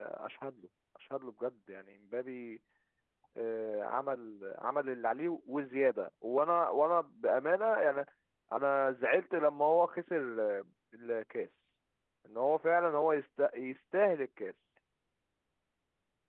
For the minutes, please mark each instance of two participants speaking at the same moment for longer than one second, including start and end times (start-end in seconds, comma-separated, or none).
none